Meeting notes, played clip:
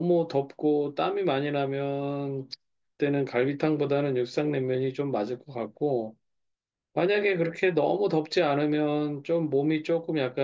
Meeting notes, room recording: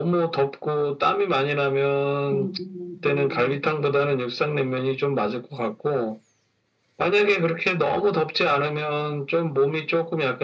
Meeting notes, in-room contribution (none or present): present